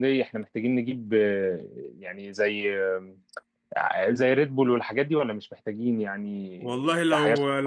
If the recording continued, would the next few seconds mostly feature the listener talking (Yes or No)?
Yes